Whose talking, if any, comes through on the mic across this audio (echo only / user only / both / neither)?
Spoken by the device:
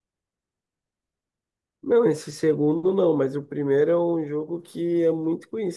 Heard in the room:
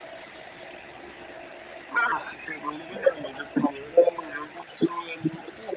echo only